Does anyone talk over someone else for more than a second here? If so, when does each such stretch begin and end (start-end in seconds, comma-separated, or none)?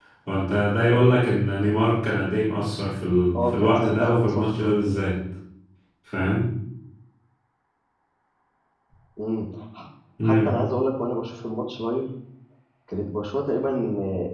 3.4-4.8